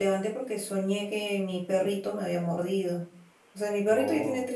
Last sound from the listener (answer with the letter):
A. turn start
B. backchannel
B